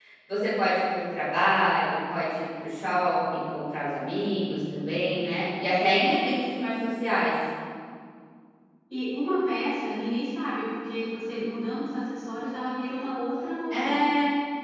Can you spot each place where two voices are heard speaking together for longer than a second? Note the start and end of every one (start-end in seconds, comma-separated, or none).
none